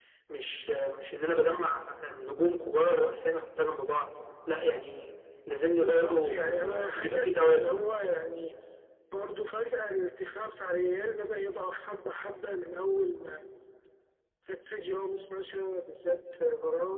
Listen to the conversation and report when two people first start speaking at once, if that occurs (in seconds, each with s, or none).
5.8 s